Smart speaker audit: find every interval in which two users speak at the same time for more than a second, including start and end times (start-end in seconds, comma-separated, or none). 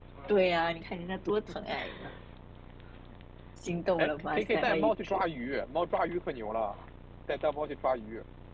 4.0-5.2